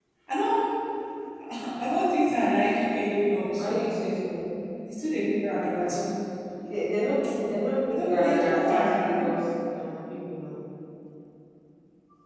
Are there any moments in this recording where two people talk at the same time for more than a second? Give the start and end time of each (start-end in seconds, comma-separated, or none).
7.9-9.3